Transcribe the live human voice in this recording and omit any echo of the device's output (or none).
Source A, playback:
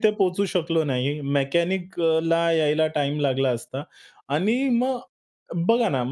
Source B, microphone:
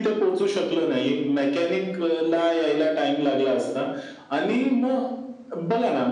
none